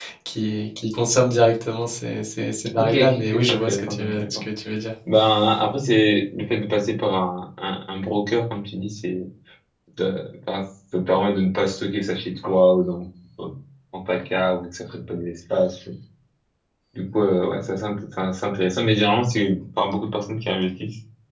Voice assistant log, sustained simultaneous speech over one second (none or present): present